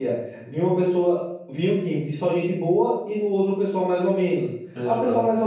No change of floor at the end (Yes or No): Yes